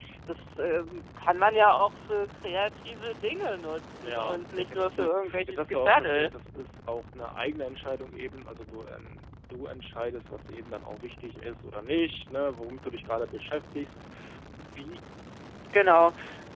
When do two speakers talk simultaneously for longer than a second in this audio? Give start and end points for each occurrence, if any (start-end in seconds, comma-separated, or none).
4.0-6.3